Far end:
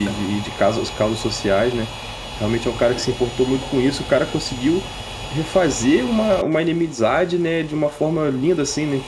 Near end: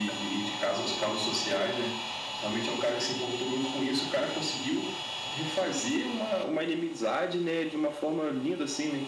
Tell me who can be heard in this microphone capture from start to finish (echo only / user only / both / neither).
echo only